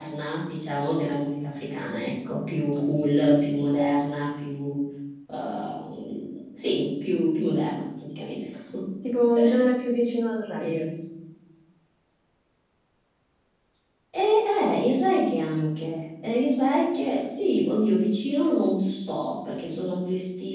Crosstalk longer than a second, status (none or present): none